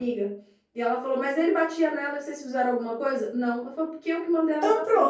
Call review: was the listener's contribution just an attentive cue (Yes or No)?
Yes